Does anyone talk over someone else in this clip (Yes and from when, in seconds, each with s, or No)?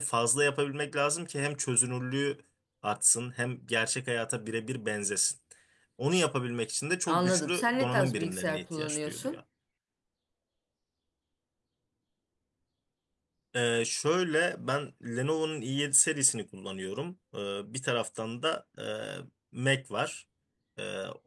Yes, from 7.1 s